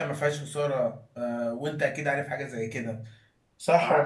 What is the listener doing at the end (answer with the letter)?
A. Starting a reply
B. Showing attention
A